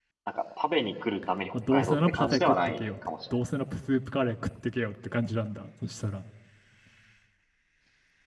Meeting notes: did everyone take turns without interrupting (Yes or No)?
No